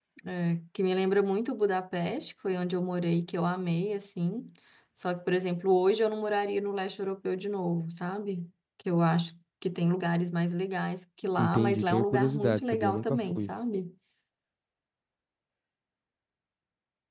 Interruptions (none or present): present